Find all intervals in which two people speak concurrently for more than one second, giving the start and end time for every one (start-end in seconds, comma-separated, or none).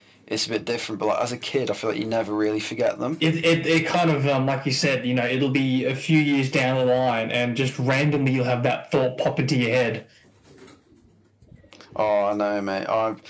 none